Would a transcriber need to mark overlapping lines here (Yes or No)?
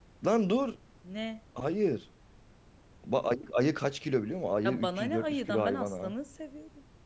Yes